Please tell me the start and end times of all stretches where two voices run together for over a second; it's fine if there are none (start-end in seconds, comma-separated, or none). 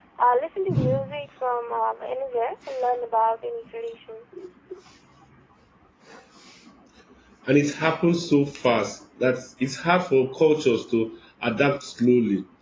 none